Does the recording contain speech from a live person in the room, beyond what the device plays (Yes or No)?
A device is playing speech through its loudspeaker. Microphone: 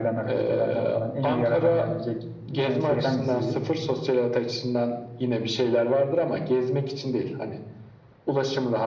No